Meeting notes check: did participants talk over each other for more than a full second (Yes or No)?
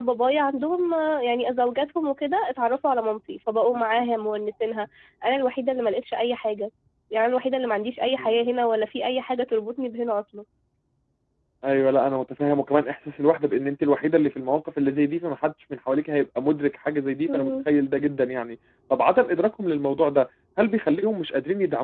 No